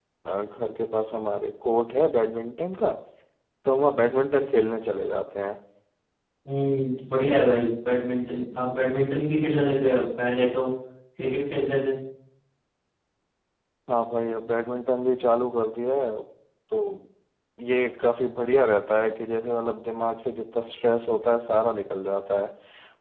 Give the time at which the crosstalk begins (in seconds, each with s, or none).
none